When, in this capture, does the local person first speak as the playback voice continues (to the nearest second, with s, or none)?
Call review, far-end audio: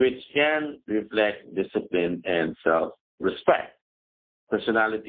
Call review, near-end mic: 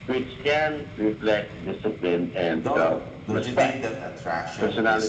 3 s